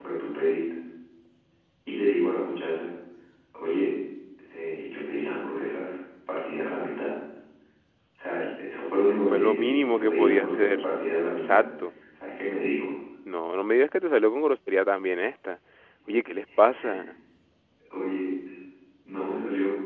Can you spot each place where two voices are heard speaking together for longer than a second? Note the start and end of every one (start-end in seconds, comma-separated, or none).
9.3-10.9